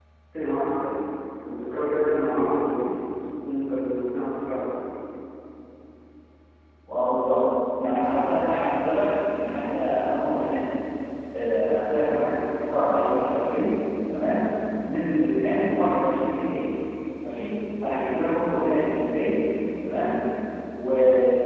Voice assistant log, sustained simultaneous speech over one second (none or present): none